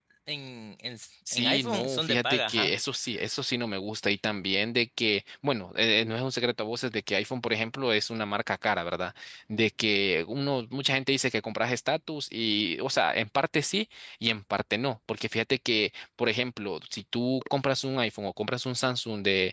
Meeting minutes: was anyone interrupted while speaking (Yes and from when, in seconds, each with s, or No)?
Yes, from 1.3 s